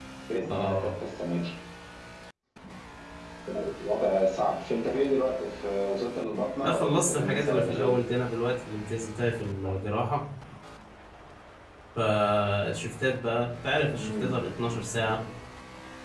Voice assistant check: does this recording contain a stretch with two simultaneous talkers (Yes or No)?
Yes